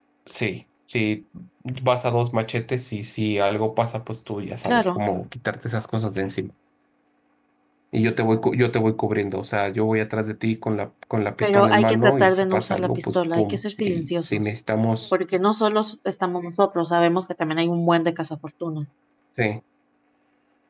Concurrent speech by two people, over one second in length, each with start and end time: 11.4-14.5

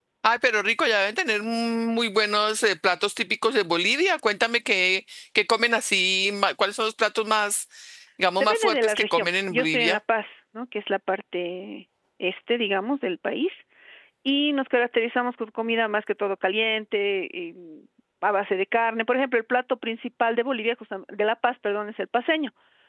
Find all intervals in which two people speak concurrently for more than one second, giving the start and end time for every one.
8.4-10.0

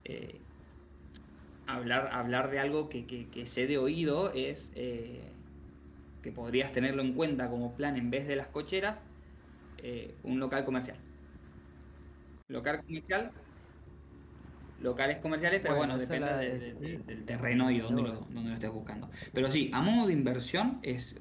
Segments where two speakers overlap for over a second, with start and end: 15.6-18.2

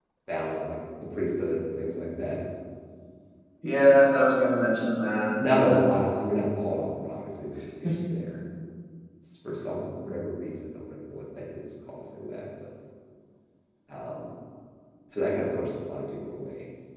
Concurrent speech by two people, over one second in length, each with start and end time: none

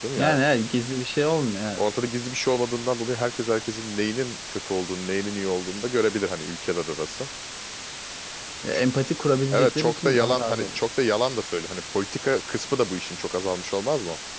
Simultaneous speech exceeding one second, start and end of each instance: 9.5-10.8

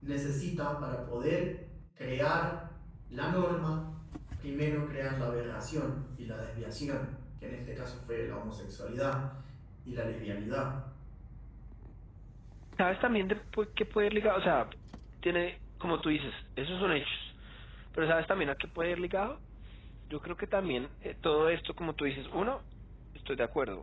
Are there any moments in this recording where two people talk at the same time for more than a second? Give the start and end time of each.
none

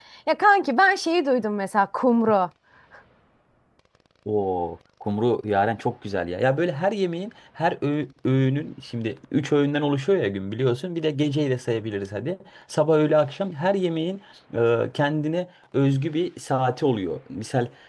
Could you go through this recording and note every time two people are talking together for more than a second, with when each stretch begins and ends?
none

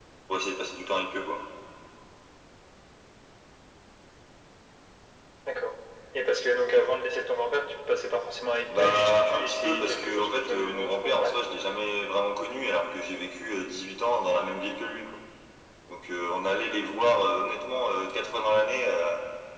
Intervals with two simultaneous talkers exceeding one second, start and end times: 8.7-11.4

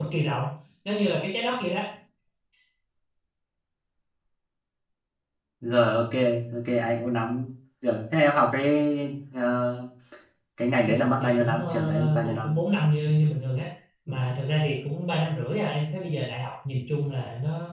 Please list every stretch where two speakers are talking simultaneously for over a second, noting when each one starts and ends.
10.8-12.5

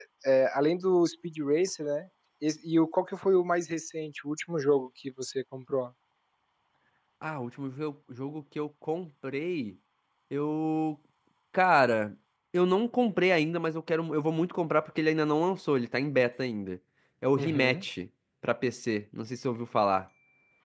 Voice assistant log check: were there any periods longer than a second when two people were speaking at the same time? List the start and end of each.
none

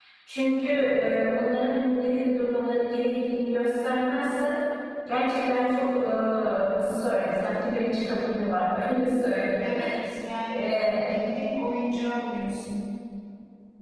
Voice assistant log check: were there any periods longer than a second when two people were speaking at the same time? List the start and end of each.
none

